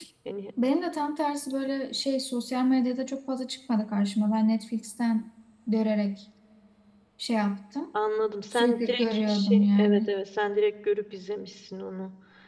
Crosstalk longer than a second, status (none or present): present